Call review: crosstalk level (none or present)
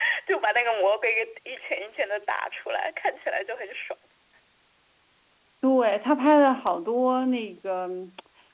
none